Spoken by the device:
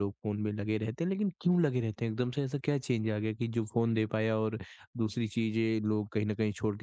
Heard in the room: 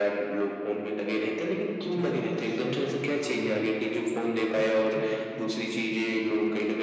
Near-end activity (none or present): present